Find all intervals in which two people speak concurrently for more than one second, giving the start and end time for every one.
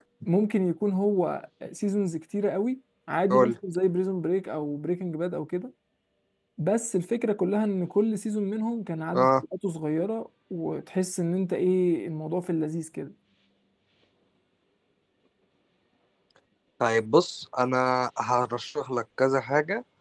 none

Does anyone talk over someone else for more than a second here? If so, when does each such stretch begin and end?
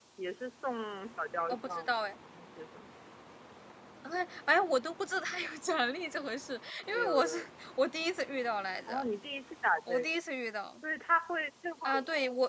none

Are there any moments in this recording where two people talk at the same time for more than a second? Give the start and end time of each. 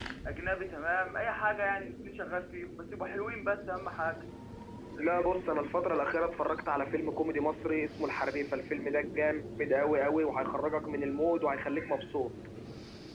none

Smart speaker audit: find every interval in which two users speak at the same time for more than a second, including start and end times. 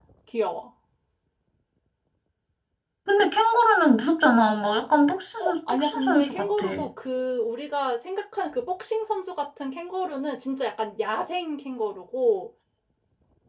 5.4-6.7

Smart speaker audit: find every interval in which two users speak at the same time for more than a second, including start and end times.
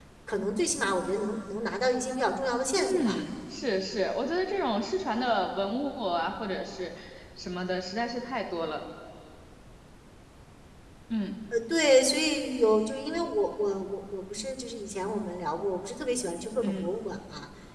none

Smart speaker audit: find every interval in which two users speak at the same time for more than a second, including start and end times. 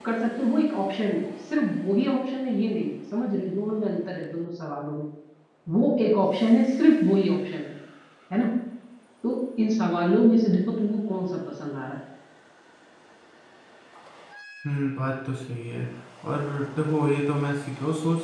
none

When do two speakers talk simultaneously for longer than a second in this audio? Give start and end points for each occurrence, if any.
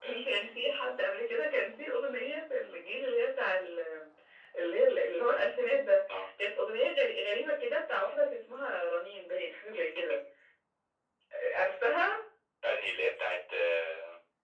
none

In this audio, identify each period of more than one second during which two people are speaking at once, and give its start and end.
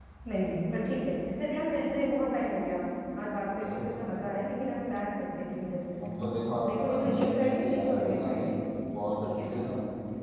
6.7-8.5

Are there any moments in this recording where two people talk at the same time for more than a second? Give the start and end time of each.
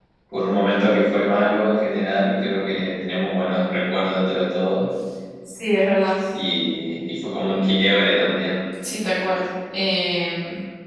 none

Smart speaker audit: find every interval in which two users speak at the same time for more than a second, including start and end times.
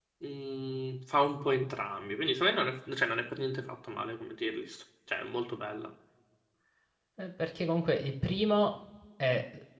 none

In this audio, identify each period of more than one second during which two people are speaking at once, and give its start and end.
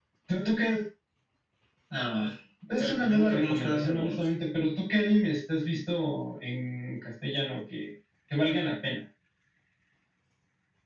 2.8-4.3

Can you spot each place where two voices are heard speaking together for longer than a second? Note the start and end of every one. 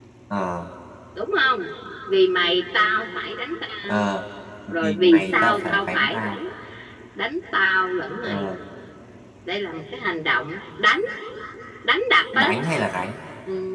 4.7-6.4

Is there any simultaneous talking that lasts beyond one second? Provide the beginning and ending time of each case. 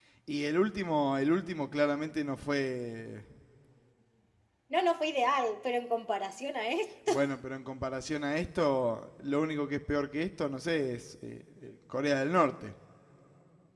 none

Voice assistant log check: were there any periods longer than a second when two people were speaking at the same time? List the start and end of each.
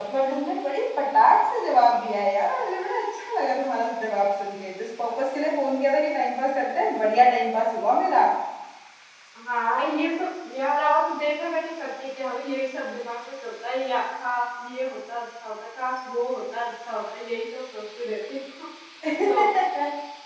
none

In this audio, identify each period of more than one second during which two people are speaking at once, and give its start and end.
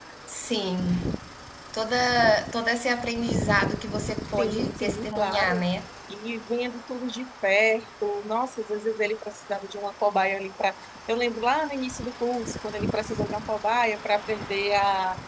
4.4-5.6

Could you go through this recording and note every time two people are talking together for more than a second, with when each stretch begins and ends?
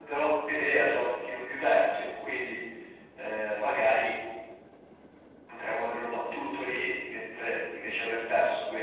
none

